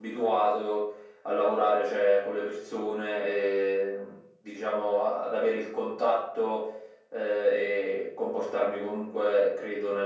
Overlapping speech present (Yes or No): No